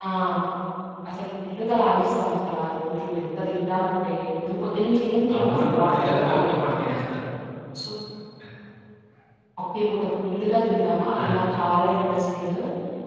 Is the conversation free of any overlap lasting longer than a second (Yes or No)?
No